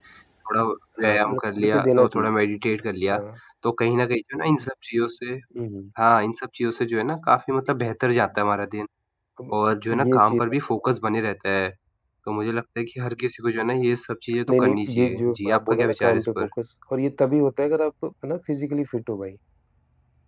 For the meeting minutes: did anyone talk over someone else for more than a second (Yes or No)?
Yes